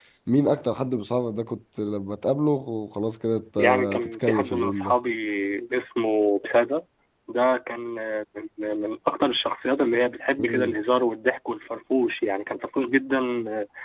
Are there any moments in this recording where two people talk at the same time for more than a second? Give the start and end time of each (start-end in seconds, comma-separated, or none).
3.6-5.0